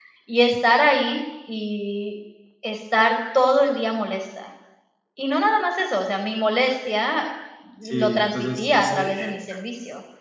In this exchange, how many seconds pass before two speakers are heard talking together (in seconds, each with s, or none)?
8.0 s